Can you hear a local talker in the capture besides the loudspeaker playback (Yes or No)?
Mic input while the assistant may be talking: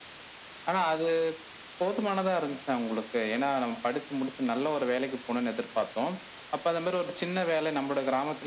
No